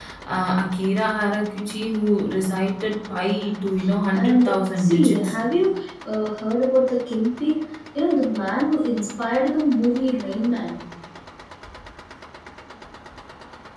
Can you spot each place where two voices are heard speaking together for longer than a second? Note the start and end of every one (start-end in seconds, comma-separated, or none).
4.1-5.3